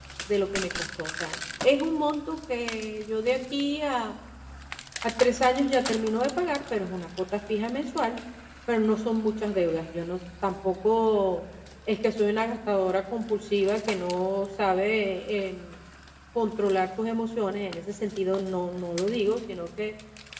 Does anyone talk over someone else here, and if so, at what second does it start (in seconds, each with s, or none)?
none